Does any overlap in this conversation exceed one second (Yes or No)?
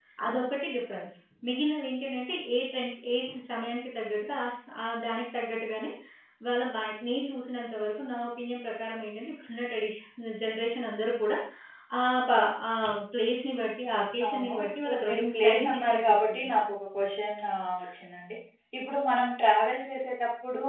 Yes